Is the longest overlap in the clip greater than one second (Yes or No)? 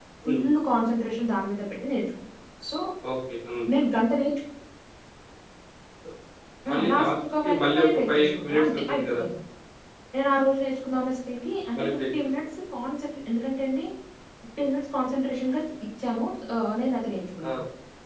Yes